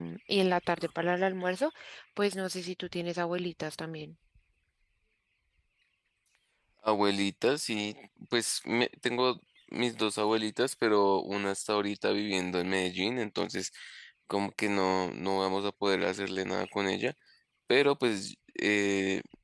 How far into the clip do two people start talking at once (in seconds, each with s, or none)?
none